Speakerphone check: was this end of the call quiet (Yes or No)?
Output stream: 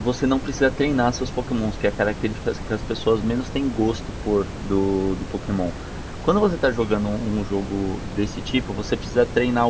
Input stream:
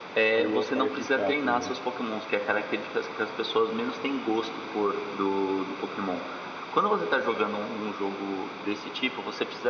No